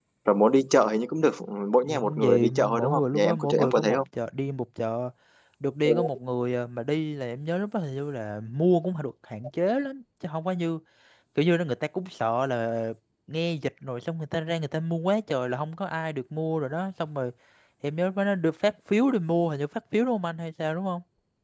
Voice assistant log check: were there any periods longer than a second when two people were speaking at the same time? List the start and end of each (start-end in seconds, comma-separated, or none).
1.9-4.0